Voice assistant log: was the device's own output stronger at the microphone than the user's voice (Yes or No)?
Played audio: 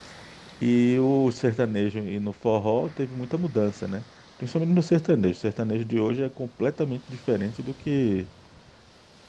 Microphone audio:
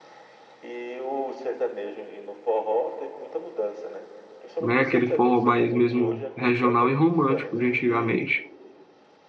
No